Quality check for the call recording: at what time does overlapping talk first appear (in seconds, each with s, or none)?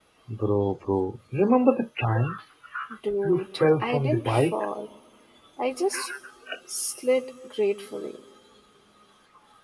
3.2 s